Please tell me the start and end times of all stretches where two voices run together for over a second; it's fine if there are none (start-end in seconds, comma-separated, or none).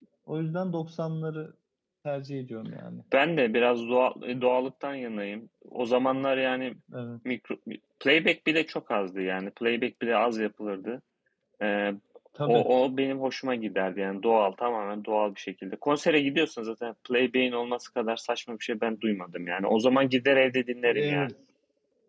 none